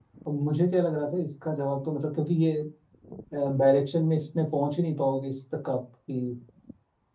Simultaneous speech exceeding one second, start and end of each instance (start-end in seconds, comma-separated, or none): none